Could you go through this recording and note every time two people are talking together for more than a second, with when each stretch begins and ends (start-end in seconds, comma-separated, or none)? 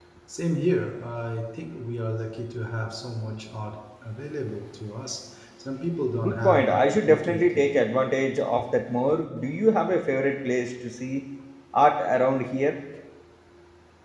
6.2-7.7